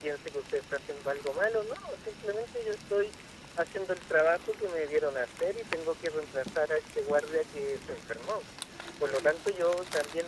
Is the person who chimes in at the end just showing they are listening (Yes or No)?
Yes